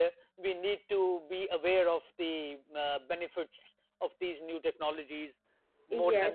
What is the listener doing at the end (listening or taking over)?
taking over